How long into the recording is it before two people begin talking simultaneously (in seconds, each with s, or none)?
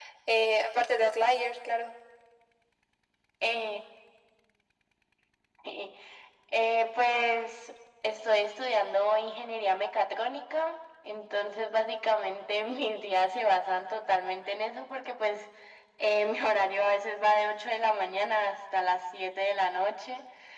none